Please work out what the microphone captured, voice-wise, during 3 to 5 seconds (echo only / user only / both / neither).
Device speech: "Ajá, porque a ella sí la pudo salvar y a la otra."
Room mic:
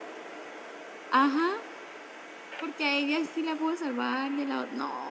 echo only